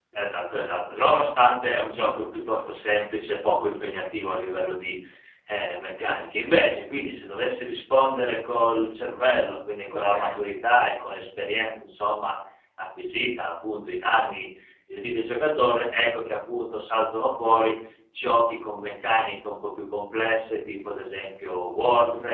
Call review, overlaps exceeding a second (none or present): none